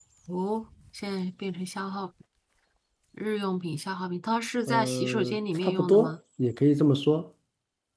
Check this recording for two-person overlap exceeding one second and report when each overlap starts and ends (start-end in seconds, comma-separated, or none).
4.7-6.1